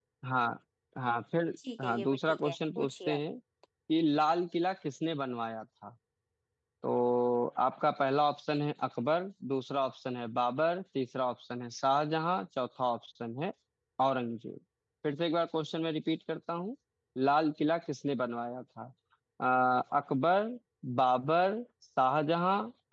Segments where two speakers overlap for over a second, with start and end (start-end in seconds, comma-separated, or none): 1.8-3.2